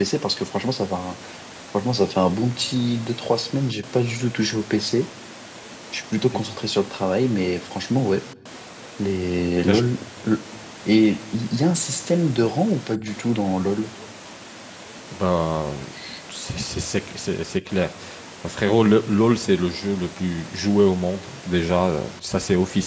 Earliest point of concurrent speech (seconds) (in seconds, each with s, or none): none